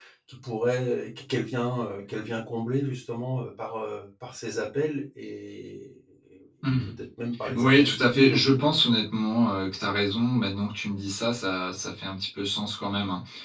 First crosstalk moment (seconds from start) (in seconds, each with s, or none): 7.5 s